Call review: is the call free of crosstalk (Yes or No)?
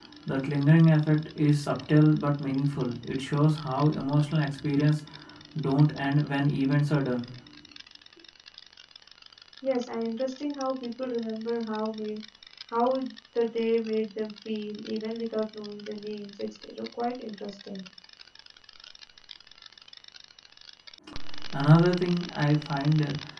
Yes